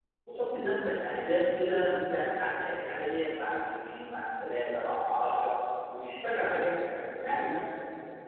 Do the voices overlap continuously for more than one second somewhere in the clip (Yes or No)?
No